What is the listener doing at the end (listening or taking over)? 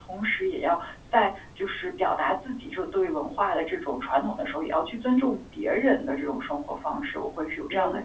taking over